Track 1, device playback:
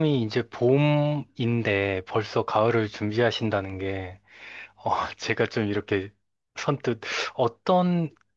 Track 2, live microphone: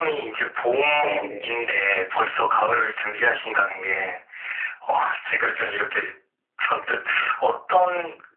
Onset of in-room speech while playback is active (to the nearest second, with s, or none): 1 s